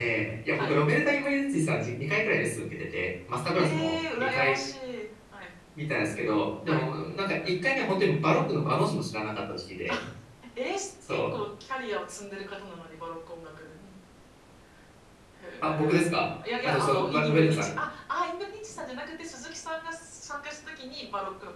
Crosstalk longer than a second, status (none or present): present